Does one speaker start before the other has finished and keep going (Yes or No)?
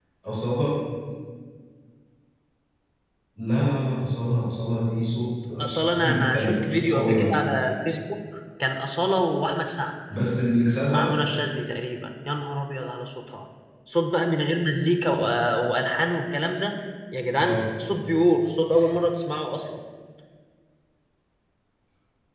Yes